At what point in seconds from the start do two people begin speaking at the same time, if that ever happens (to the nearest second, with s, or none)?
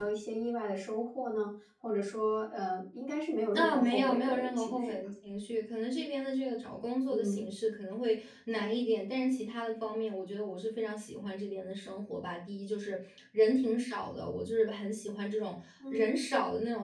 4 s